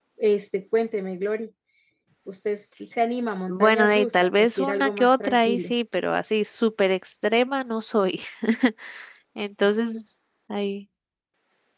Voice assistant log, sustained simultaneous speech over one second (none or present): present